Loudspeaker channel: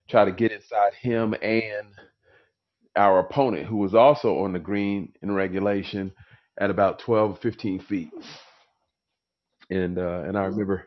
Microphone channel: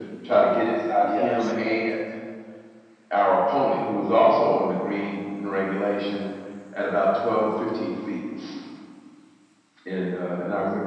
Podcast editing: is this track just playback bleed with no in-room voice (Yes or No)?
No